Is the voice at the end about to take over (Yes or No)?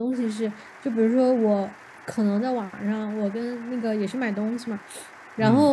No